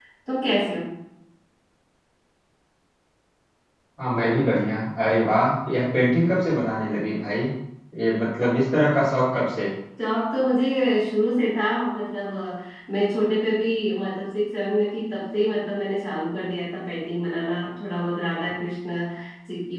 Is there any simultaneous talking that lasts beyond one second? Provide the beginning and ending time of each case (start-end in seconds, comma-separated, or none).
none